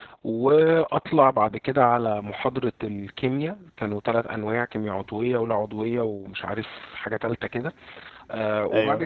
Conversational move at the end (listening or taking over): listening